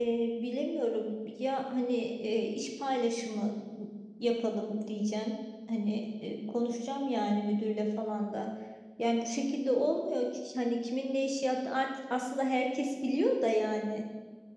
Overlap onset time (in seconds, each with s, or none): none